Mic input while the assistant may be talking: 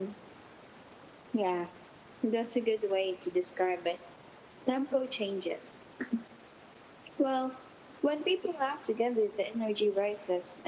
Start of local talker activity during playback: none

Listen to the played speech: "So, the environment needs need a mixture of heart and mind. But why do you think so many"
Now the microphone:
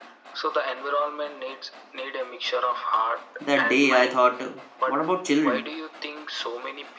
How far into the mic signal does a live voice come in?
3.4 s

